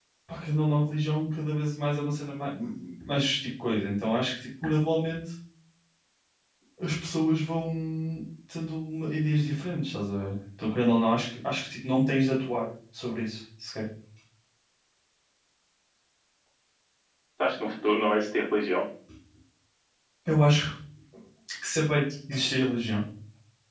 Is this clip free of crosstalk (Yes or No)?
Yes